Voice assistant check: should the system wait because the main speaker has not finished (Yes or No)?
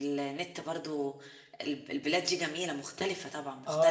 No